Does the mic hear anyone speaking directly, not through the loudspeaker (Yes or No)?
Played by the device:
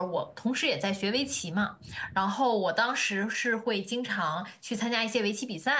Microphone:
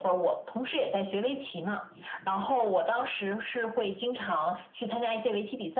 No